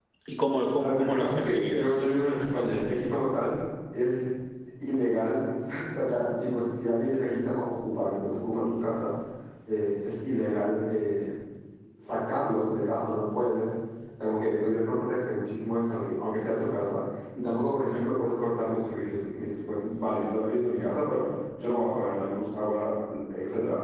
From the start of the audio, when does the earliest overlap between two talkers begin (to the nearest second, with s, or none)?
1 s